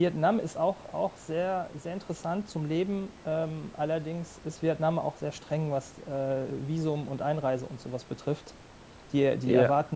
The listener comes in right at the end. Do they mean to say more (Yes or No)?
No